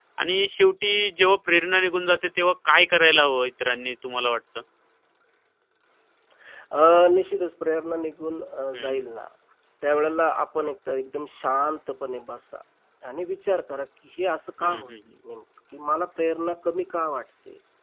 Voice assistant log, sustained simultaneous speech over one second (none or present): none